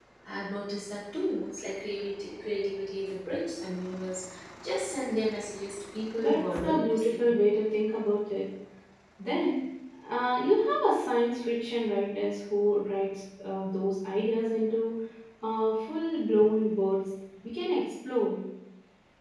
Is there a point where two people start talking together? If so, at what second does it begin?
6.2 s

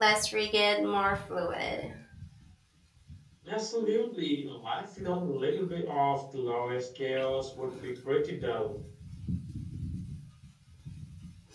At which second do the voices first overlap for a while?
none

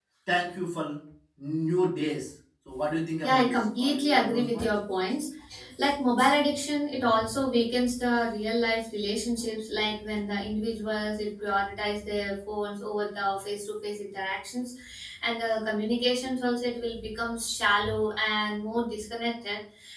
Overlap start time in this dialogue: 3.2 s

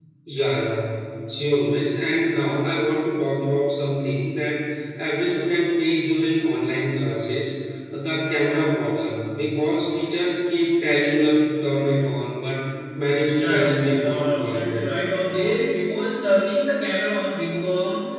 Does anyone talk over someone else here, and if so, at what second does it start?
13.3 s

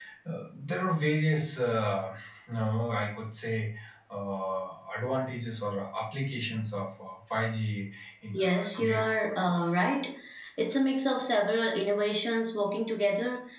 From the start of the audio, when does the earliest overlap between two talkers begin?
8.3 s

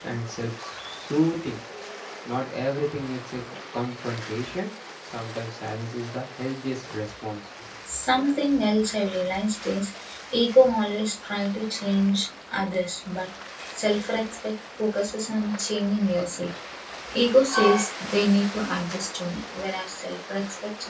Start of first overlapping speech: none

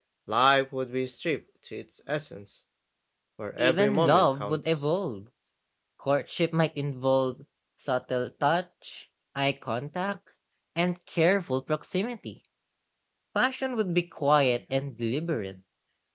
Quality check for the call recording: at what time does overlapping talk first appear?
3.6 s

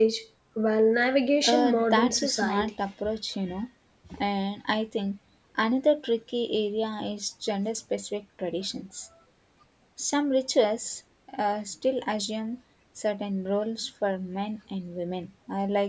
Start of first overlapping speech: 1.4 s

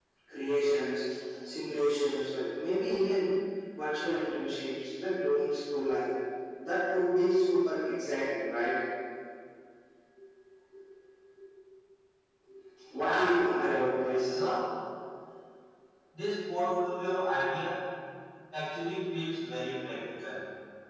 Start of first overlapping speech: 12.9 s

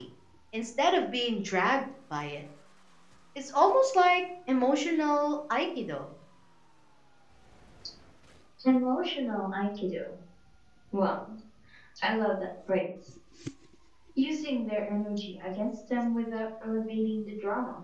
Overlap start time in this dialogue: none

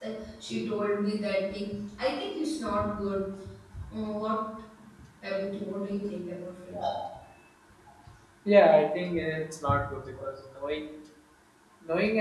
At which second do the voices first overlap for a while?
none

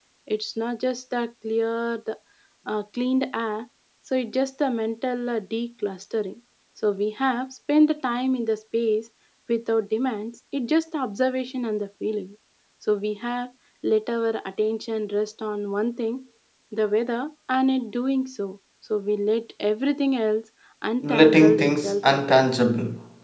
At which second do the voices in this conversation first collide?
21.0 s

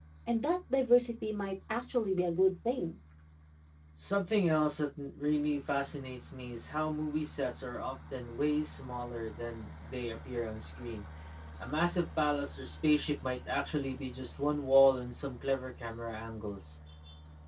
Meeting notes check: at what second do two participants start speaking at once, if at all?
none

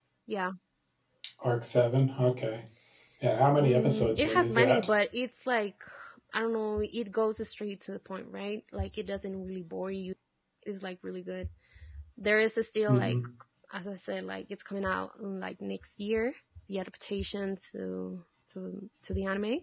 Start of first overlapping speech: 3.6 s

